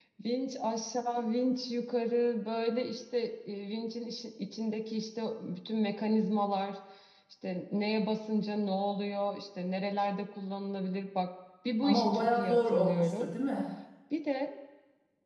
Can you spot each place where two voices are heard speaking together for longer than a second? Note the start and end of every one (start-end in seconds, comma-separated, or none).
11.8-13.3